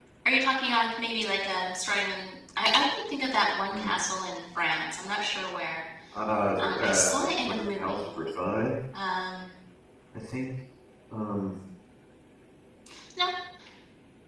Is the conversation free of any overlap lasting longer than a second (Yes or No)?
No